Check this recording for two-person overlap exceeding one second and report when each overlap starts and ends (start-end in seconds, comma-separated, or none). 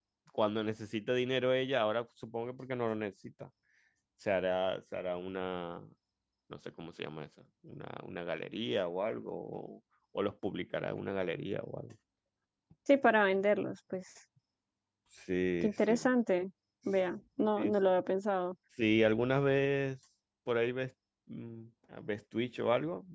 none